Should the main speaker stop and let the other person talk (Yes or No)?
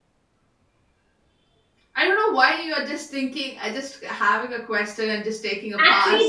Yes